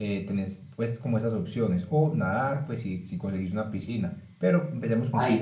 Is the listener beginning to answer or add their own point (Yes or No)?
Yes